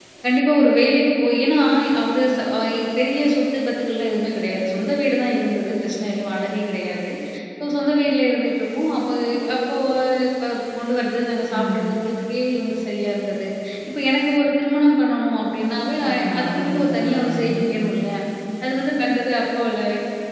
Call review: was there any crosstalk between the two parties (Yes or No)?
Yes